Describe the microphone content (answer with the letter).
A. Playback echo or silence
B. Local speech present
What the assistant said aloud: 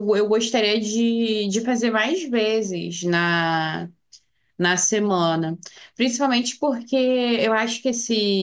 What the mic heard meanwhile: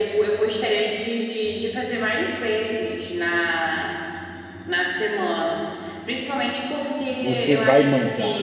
B